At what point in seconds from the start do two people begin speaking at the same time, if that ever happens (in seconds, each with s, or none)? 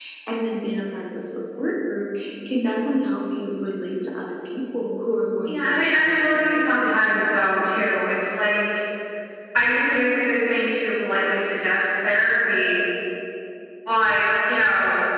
5.5 s